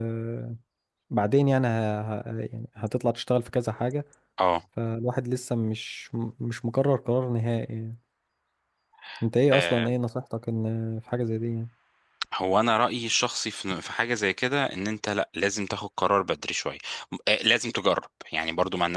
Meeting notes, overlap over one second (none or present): none